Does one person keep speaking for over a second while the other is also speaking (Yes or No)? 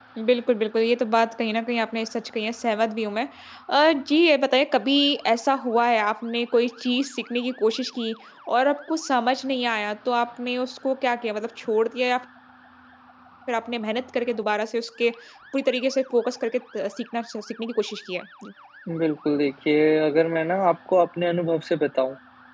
No